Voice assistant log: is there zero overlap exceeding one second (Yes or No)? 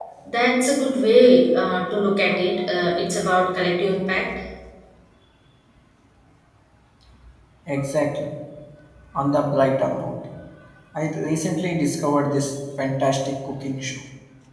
Yes